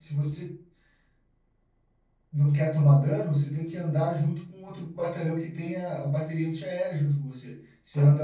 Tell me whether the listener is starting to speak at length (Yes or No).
No